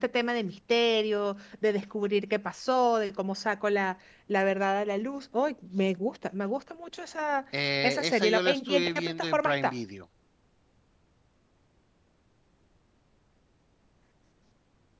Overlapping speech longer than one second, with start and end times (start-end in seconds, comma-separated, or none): 7.8-9.7